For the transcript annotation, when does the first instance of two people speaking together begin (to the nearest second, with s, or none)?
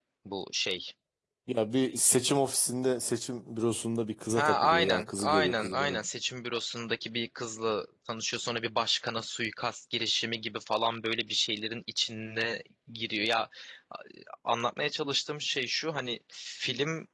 4 s